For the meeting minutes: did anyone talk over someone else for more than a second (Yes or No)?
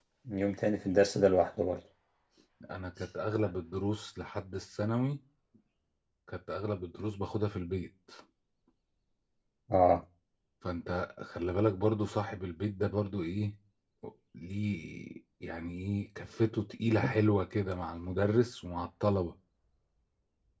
No